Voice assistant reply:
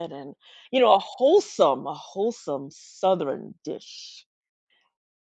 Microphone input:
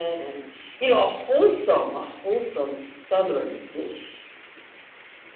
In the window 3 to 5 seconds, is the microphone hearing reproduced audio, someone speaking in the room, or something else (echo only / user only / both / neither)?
echo only